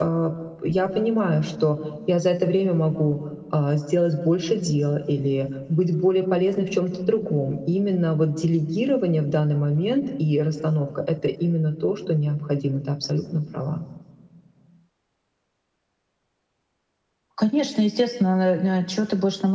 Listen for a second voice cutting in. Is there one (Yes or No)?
No